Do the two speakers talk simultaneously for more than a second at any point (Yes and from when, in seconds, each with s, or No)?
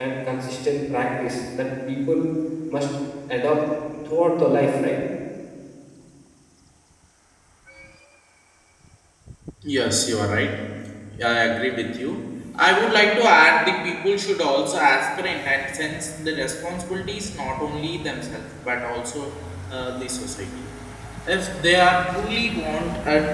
No